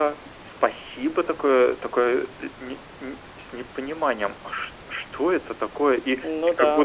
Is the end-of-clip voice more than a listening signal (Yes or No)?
No